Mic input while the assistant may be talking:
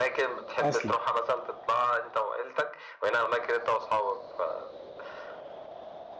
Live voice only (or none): اصلي